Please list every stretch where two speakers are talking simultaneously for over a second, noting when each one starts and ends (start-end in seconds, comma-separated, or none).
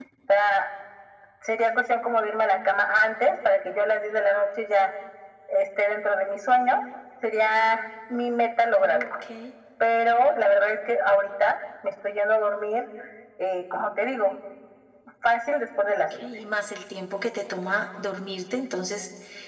none